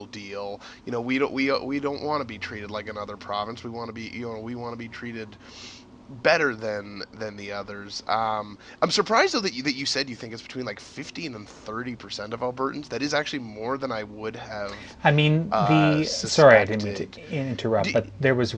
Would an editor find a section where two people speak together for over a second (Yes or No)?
Yes